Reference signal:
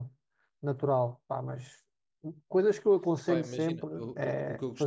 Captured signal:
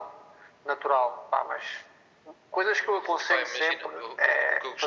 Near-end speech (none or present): none